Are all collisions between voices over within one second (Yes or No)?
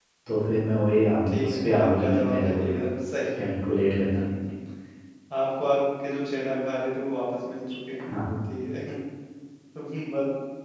No